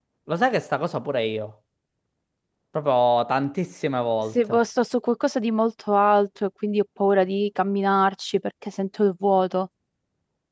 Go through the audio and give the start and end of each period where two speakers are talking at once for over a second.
none

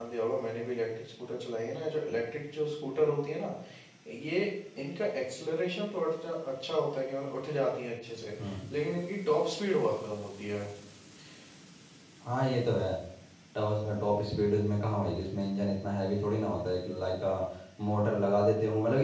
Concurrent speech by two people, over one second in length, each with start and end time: none

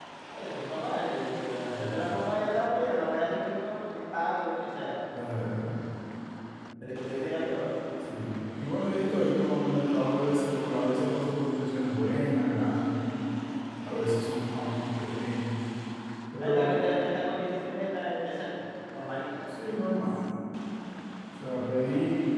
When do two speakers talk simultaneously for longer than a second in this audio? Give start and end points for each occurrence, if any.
none

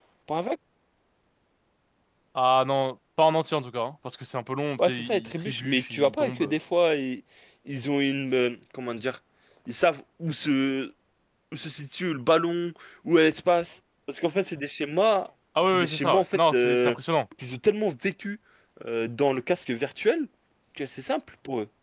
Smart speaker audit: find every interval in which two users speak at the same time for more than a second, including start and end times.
4.8-6.5, 15.6-16.9

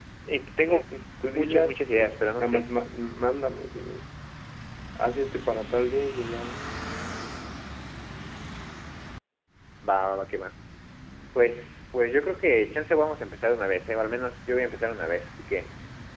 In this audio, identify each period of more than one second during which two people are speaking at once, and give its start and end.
1.3-2.6

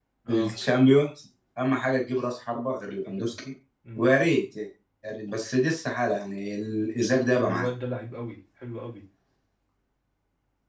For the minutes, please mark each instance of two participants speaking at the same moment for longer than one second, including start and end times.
none

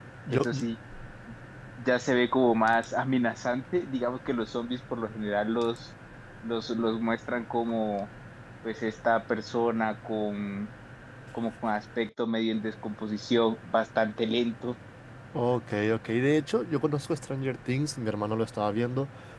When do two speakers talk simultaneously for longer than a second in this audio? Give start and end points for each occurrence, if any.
none

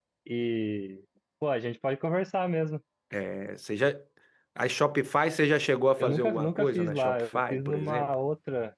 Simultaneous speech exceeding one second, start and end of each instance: 6.0-8.1

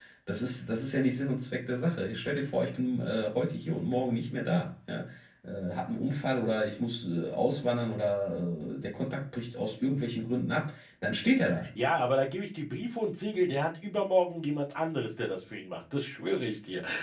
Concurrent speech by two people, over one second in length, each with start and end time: none

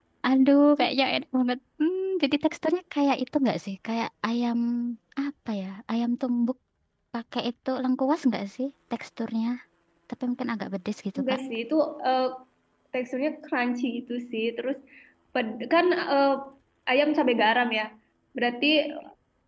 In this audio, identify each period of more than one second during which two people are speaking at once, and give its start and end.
none

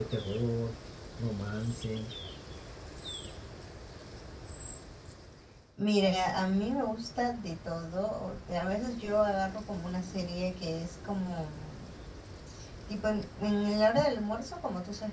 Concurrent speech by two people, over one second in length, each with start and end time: none

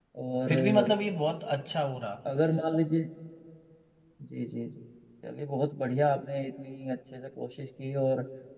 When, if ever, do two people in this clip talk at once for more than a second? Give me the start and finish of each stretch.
none

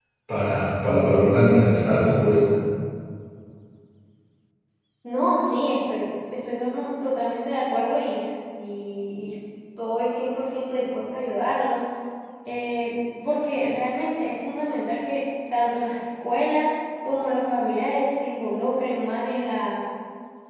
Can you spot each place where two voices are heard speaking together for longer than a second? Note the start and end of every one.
none

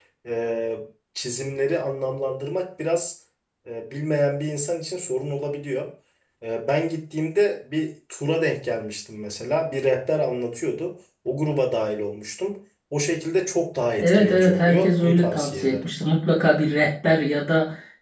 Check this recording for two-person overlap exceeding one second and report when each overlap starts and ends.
14.0-15.8

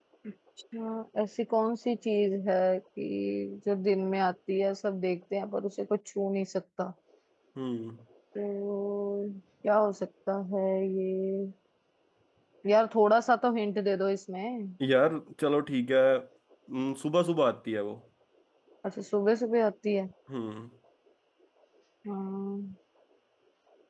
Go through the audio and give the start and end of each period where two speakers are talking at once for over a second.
none

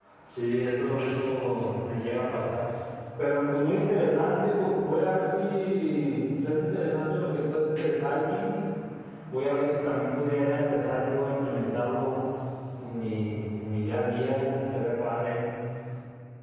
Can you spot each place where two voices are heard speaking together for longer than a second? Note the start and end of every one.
none

